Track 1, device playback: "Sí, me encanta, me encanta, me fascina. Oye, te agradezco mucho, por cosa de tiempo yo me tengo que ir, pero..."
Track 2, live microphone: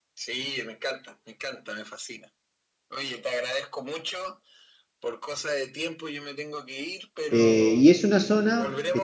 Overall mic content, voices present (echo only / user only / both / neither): both